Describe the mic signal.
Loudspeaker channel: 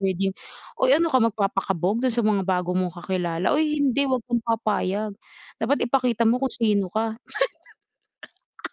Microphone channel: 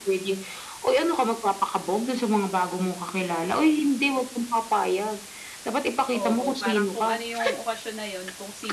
both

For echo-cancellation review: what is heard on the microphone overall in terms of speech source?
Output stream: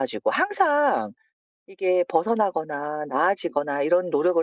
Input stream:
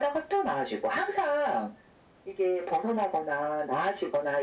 echo only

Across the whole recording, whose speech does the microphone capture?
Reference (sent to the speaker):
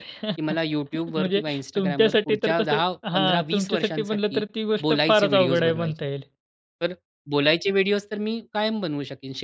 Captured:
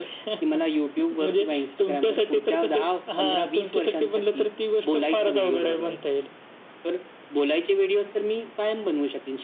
echo only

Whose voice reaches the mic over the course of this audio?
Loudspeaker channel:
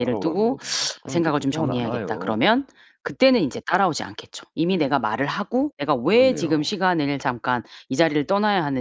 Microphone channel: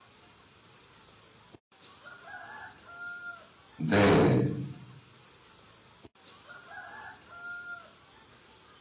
user only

